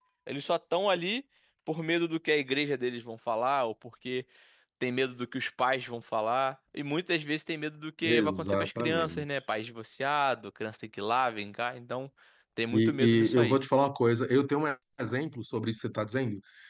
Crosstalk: present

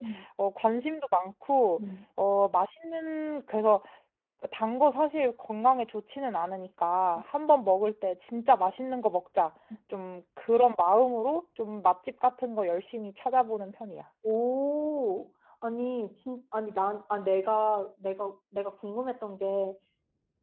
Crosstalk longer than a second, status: none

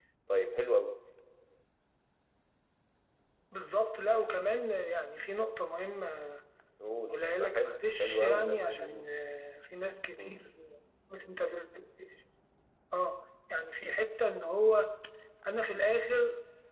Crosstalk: present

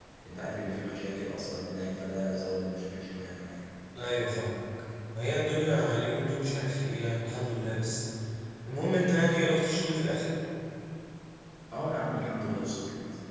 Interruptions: none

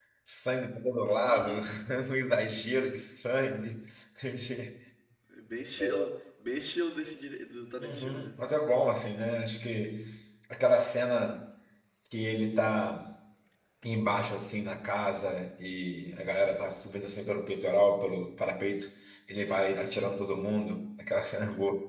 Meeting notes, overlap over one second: none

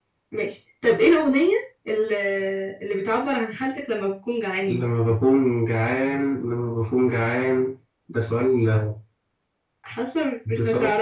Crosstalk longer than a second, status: none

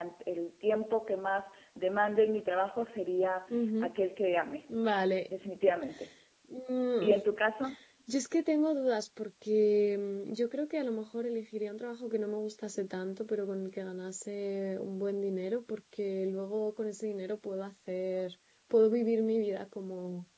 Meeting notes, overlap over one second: none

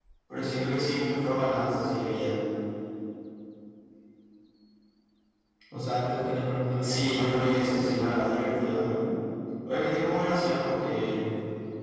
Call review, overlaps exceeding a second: present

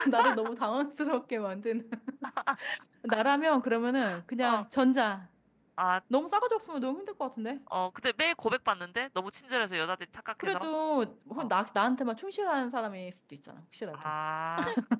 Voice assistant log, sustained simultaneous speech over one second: none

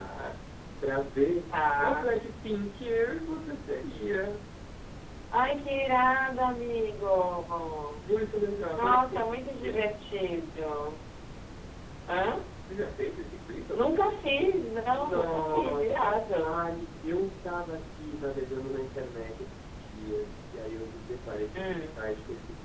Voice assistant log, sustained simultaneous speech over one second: present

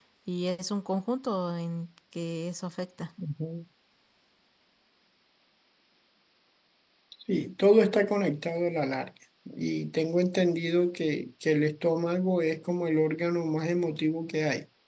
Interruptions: none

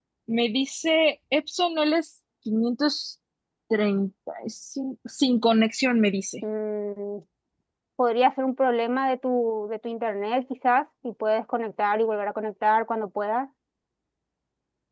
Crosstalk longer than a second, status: none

